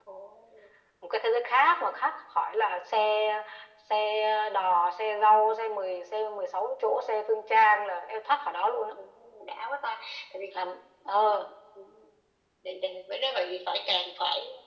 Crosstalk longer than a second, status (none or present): none